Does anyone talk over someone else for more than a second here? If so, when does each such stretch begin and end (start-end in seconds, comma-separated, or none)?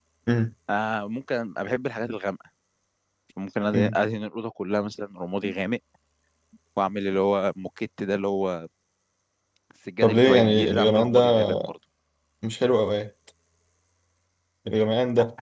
10.0-11.5